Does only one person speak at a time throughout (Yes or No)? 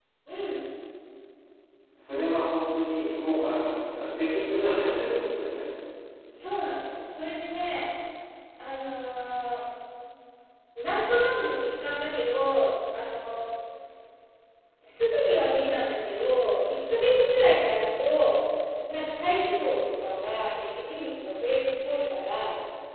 Yes